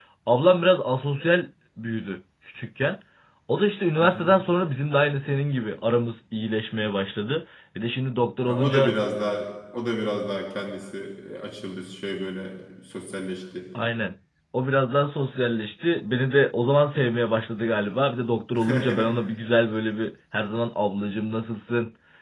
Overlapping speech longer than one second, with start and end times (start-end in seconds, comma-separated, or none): none